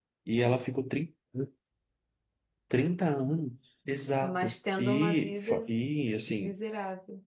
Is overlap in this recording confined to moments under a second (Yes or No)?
No